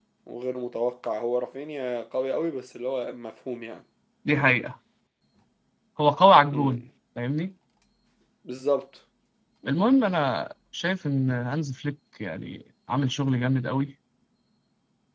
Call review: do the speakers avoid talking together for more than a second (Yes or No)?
Yes